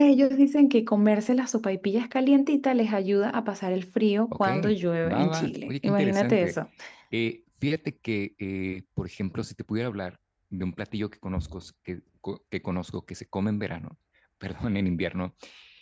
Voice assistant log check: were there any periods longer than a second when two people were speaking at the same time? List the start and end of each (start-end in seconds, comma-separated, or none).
5.1-6.5